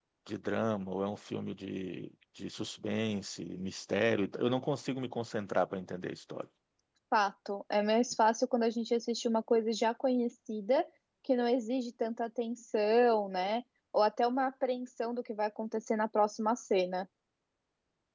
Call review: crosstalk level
none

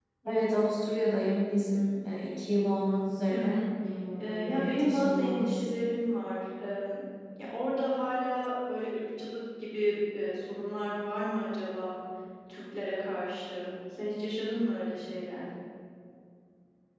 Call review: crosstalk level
present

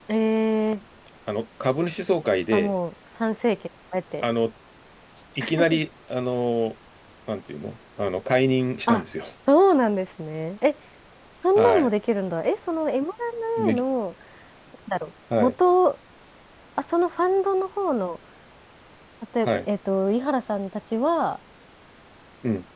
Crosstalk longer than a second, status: none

